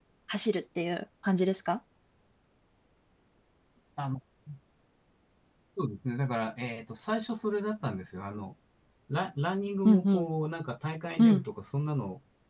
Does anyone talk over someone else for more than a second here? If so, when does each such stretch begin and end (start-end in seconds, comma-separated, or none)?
none